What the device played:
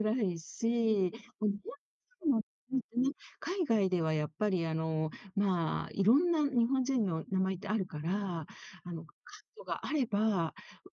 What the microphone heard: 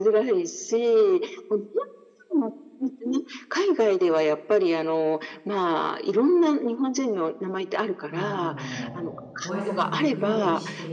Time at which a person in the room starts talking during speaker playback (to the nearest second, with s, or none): 8 s